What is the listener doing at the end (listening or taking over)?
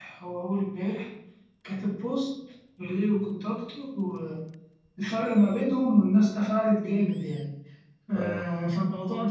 listening